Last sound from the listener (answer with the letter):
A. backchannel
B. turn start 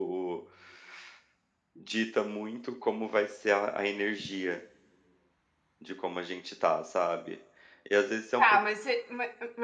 B